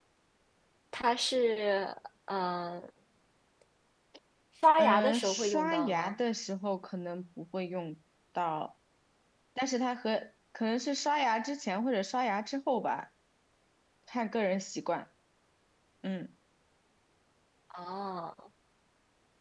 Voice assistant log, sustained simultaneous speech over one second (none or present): present